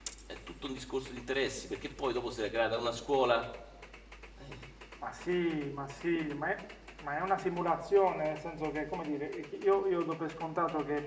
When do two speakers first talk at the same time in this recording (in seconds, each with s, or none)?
none